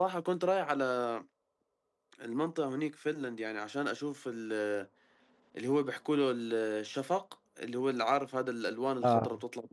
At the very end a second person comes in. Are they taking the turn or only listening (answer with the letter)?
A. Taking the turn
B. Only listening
A